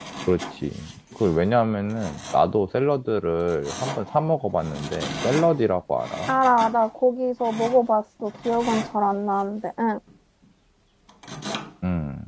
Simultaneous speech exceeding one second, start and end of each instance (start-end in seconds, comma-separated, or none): none